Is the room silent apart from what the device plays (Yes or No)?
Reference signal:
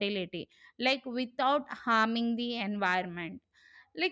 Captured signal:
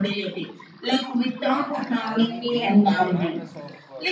No